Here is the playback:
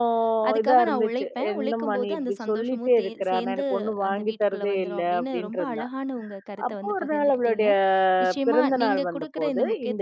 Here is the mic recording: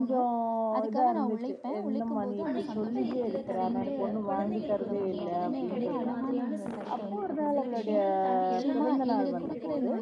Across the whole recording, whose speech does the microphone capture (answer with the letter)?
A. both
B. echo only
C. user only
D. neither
A